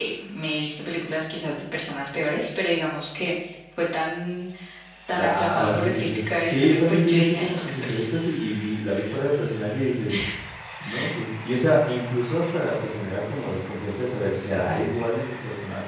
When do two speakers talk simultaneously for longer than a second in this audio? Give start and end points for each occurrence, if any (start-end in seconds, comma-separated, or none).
5.1-8.1